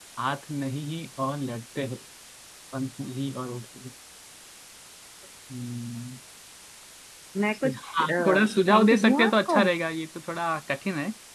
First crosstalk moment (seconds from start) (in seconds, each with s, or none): 7.6 s